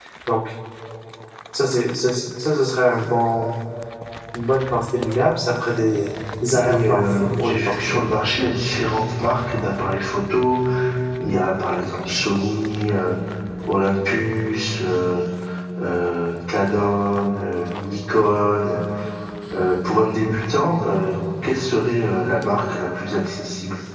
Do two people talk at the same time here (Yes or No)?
Yes